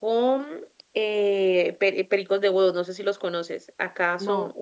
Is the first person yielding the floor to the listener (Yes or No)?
No